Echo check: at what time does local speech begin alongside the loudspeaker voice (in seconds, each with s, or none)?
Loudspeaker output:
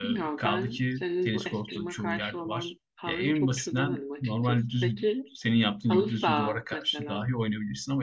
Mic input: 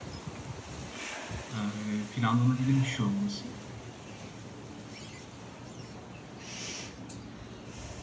1.5 s